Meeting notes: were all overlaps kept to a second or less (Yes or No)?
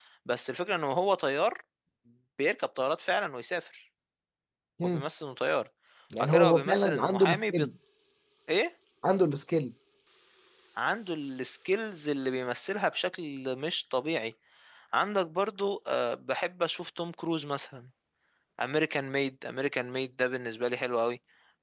No